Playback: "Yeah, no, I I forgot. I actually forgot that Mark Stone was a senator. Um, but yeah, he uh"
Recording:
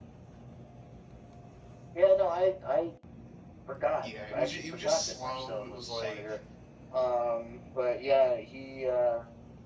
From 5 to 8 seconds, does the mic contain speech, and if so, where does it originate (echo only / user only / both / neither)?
both